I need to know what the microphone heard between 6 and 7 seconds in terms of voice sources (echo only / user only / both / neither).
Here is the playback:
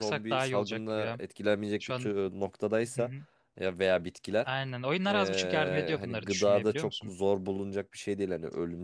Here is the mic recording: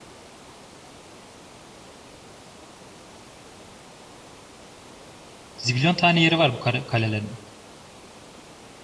user only